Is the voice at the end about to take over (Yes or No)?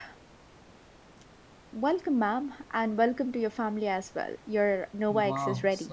Yes